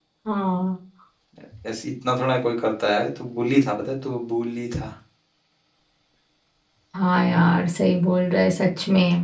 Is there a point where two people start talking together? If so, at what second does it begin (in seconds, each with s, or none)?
none